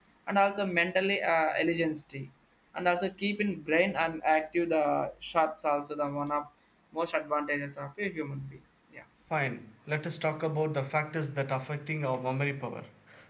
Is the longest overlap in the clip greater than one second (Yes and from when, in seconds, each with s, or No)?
No